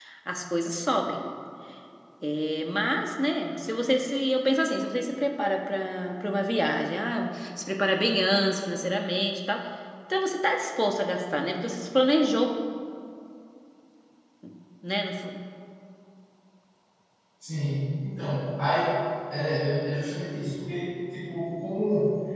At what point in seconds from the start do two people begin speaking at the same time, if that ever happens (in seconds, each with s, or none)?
none